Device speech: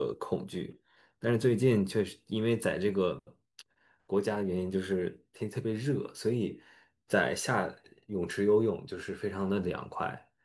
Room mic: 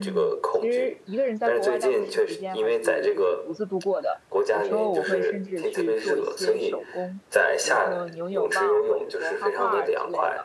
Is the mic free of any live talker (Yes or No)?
No